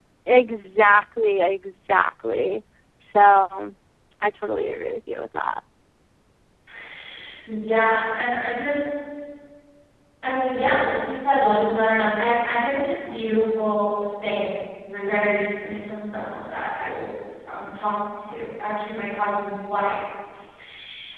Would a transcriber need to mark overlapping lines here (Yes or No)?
No